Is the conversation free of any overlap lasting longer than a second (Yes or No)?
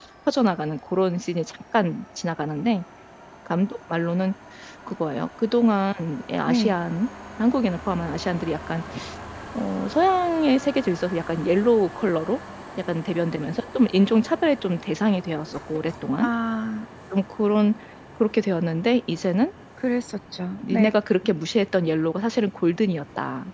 Yes